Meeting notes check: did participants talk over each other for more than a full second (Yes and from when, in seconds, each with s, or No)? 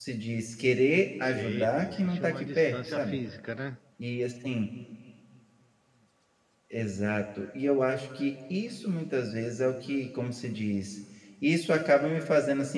Yes, from 1.2 s